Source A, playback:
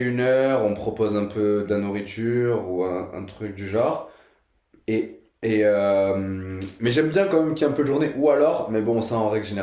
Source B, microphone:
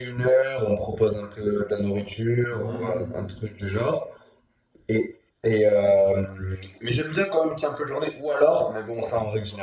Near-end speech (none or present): present